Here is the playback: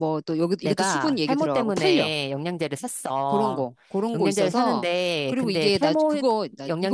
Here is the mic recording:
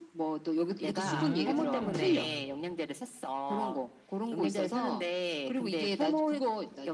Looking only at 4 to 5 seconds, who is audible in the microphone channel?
echo only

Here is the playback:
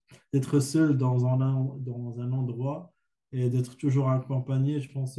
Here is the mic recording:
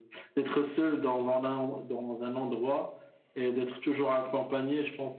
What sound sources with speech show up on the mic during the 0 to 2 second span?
echo only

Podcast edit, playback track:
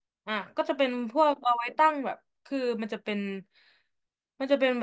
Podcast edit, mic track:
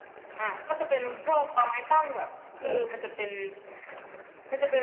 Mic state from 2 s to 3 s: both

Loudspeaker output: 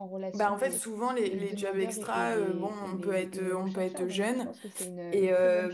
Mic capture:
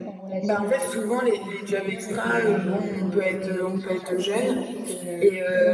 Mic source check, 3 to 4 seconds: echo only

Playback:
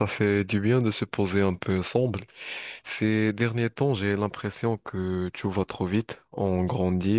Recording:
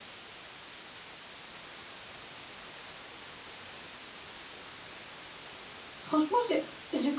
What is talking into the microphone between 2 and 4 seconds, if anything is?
neither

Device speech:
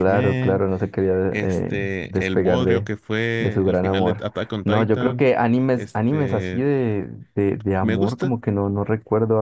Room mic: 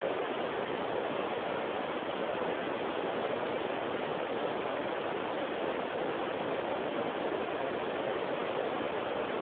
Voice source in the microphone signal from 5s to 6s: neither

